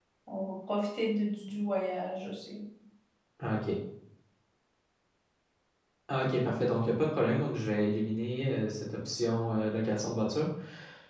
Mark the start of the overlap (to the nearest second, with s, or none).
none